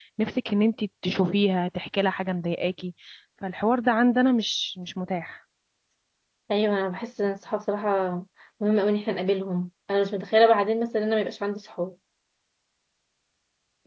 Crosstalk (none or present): none